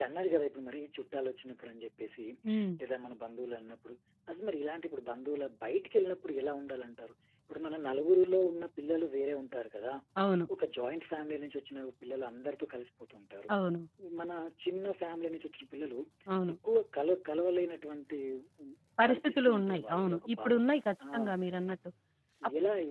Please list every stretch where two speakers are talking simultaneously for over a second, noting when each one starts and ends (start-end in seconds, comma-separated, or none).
19.1-20.6